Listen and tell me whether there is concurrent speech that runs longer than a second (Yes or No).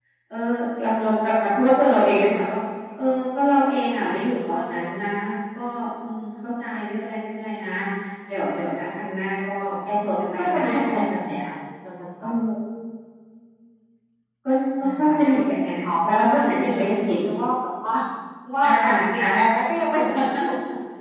Yes